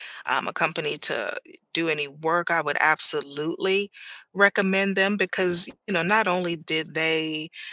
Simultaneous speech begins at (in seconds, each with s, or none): none